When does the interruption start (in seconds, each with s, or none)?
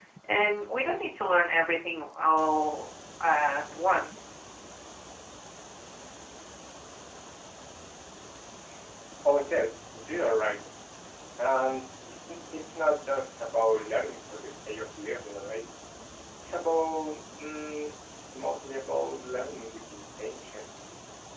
none